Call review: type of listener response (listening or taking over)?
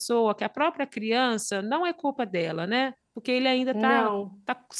listening